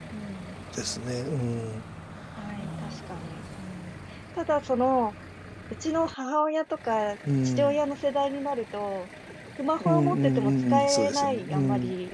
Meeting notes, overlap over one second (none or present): present